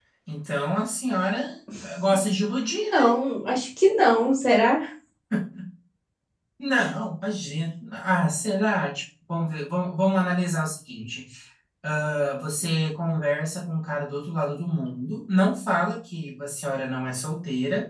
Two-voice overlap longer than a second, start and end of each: none

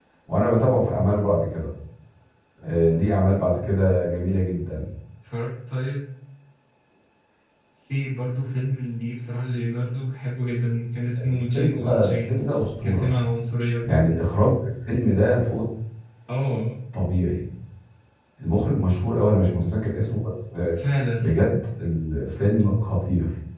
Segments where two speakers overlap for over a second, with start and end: 11.2-12.4

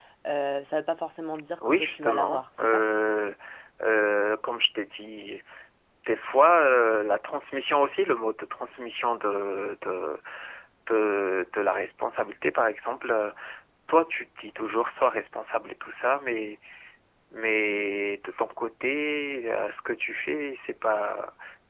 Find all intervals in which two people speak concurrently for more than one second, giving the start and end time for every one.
1.6-2.8

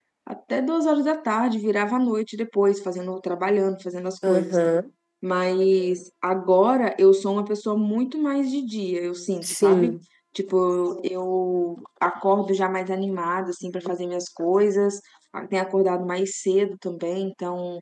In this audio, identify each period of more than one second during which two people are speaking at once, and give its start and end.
none

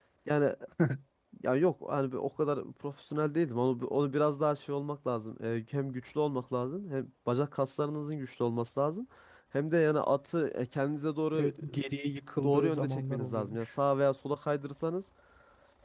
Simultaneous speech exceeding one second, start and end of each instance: 12.4-13.7

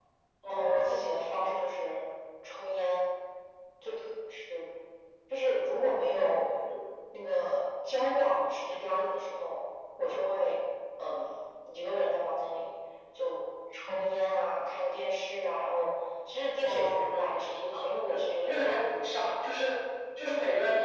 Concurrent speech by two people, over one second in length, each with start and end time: 16.6-19.4

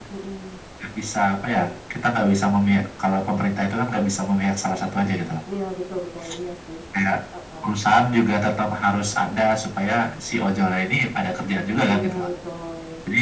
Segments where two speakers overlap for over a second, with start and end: none

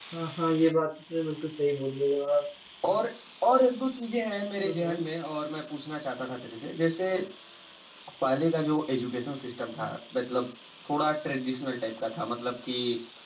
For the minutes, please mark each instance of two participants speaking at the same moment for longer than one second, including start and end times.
none

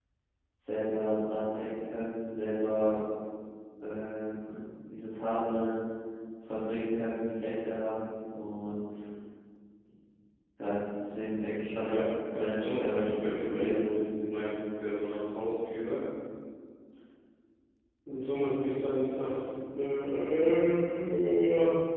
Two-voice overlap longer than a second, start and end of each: 11.7-13.8

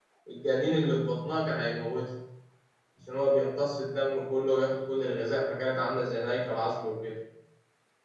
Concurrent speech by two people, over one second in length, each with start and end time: none

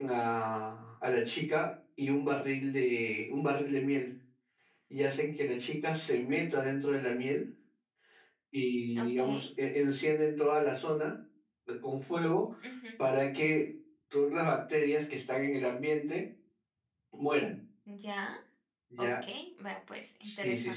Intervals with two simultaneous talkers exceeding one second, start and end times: none

